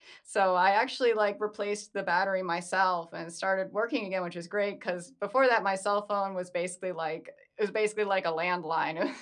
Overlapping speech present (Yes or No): No